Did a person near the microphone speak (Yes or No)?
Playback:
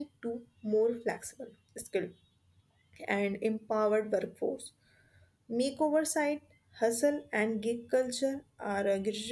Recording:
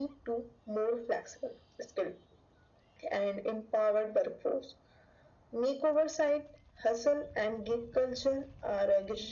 No